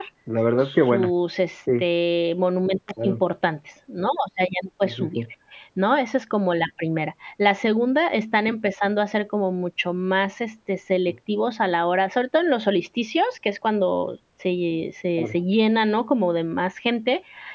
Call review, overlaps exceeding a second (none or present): none